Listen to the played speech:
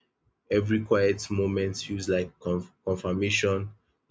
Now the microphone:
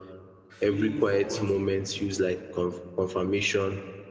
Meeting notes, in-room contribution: present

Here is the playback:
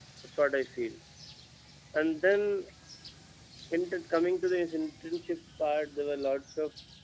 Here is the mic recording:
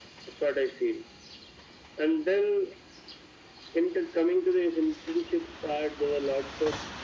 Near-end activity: none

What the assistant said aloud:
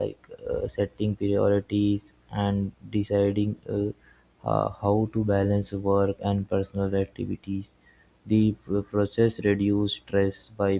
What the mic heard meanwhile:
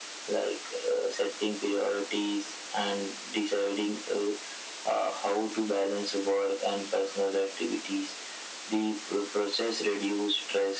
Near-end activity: none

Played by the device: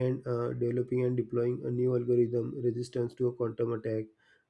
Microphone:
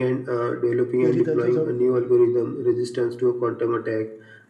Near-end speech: present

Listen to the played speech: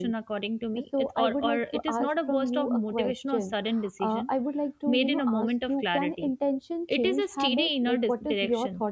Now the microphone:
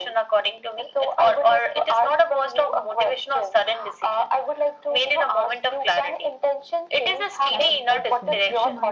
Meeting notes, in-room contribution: present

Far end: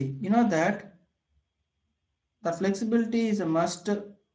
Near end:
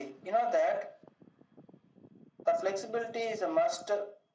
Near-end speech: none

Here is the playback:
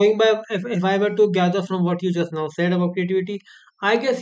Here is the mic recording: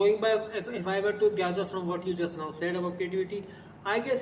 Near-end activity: none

